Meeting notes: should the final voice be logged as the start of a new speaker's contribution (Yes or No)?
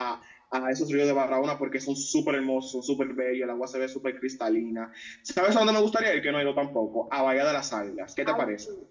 Yes